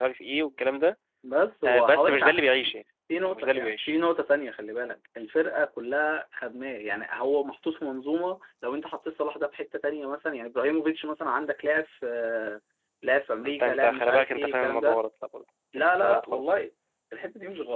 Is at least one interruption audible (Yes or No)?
Yes